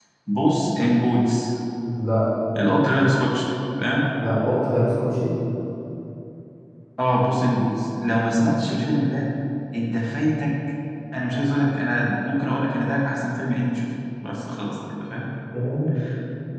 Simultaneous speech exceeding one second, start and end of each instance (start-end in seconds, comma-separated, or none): none